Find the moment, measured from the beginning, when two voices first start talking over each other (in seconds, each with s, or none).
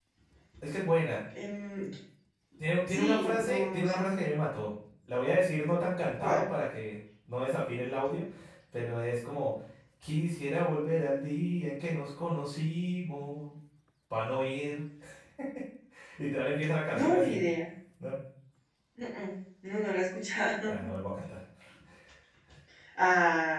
2.9 s